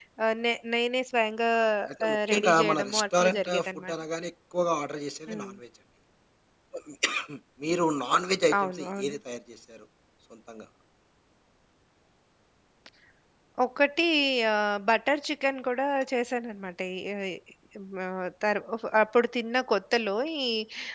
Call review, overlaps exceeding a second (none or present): present